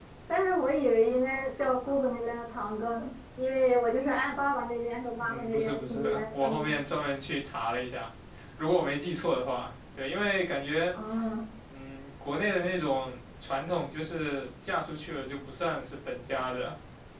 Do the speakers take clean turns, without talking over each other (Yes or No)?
No